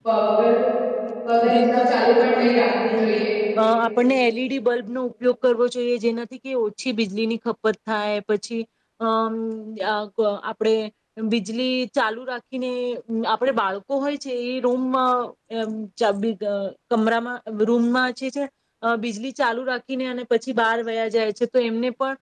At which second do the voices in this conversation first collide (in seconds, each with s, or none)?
1.5 s